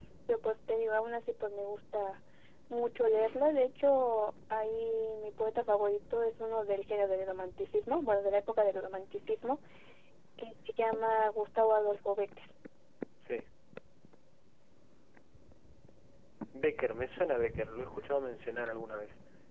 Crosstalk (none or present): none